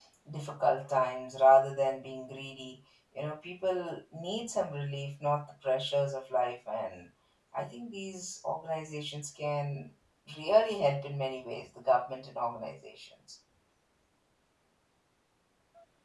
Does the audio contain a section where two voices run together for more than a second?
No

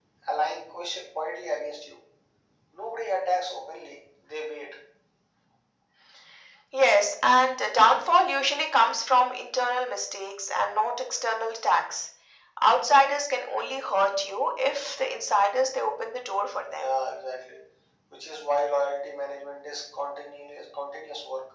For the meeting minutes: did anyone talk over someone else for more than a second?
No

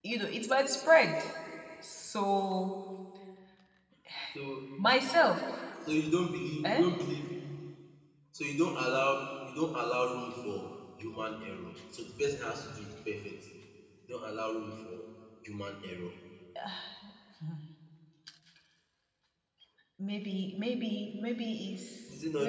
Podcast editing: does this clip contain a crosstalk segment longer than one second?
No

